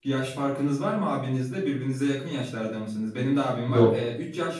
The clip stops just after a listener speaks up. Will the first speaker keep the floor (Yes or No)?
Yes